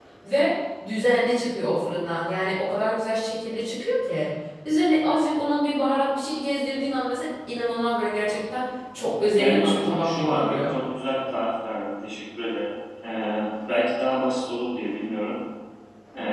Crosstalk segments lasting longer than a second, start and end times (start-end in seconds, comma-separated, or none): 9.4-10.7